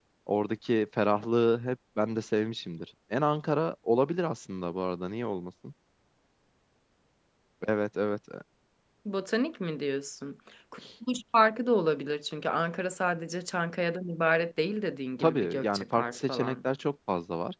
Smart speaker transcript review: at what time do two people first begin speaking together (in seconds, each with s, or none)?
15.2 s